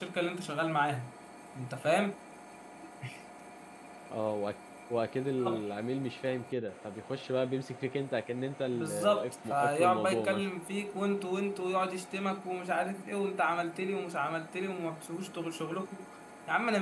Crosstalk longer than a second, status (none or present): present